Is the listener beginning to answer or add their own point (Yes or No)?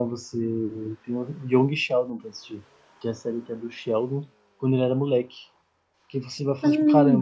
No